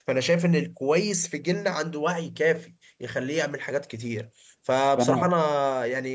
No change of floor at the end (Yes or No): Yes